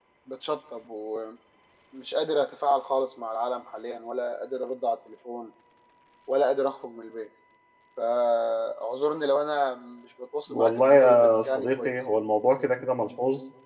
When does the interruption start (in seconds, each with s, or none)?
10.5 s